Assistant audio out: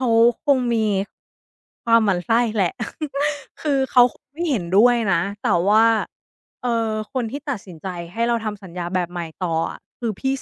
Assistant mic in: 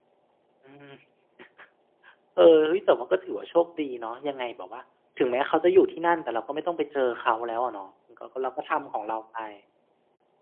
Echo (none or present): none